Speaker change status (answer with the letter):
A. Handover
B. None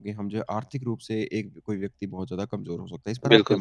A